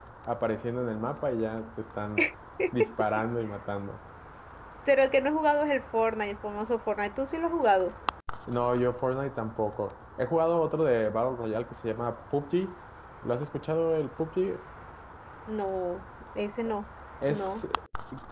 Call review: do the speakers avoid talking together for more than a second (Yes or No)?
Yes